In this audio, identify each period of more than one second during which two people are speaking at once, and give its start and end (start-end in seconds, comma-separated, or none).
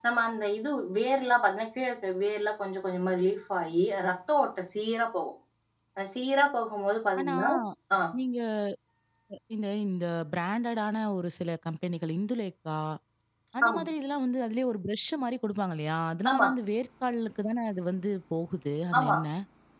none